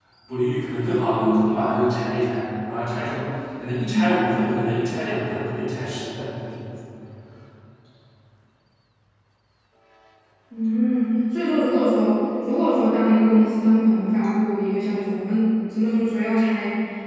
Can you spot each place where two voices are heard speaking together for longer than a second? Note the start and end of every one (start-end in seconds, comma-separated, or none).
none